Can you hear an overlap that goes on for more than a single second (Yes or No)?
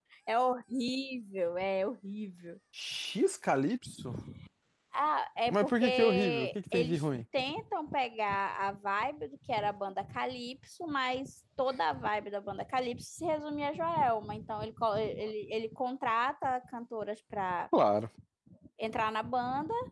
Yes